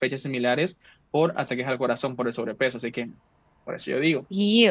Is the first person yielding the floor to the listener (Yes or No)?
Yes